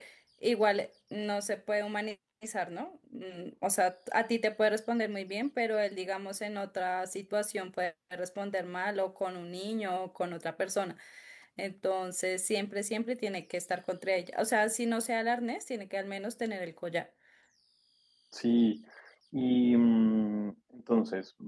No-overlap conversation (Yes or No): Yes